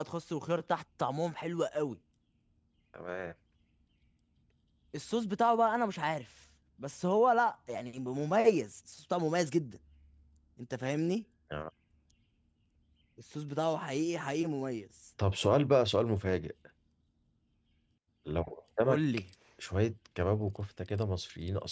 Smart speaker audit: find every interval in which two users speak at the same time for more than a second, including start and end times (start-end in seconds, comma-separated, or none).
none